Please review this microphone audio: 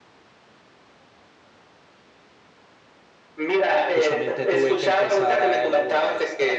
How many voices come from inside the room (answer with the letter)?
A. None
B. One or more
B